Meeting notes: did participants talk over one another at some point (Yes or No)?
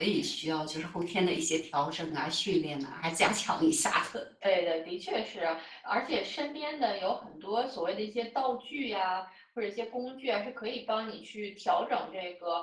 No